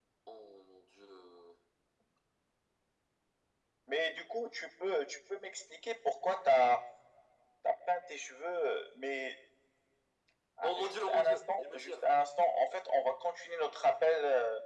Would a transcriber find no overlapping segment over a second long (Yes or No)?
No